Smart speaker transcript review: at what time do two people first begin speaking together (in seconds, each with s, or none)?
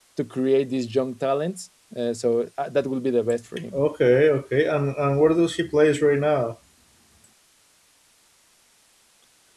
none